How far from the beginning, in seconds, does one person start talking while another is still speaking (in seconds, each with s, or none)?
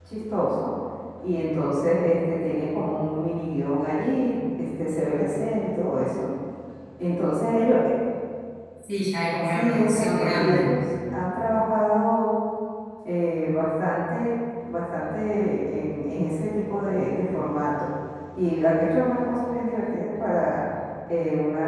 9.4 s